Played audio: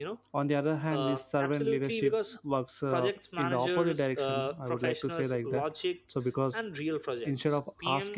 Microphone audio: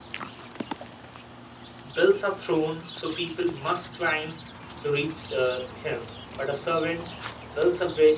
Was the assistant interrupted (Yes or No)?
Yes